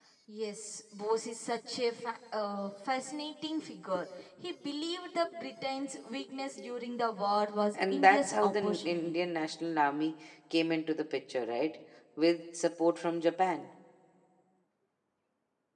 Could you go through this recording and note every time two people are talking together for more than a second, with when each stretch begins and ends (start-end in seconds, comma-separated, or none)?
7.8-9.2